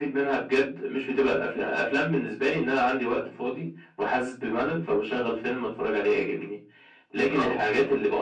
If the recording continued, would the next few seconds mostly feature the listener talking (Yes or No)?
No